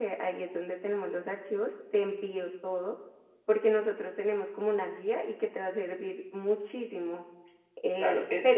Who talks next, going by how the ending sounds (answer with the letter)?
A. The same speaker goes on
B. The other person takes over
B